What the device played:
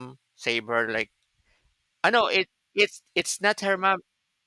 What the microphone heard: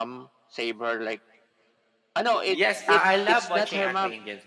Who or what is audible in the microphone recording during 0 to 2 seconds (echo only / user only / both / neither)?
echo only